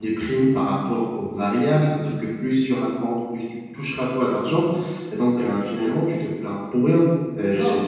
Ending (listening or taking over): taking over